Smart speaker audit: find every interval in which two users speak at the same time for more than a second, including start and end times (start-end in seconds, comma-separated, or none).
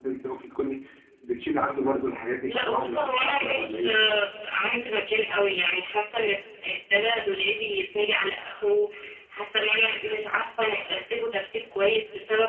2.5-4.2